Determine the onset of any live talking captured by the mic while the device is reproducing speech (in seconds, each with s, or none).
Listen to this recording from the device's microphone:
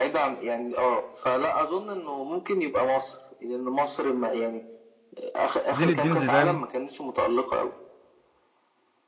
5.7 s